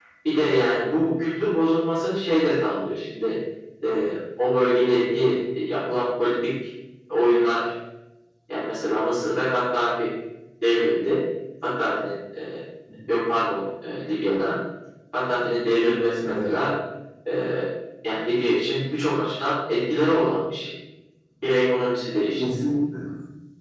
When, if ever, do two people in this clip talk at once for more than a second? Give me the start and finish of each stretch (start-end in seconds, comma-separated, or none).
none